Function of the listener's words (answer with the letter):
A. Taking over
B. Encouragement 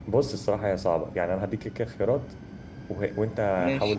B